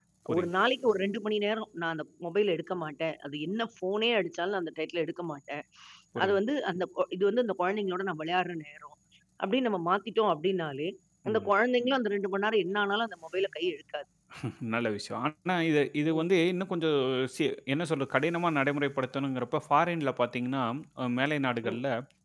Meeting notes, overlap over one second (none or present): none